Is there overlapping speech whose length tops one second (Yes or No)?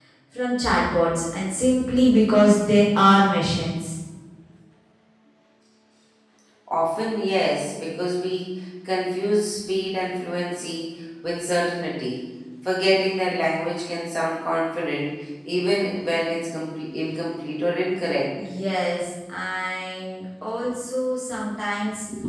No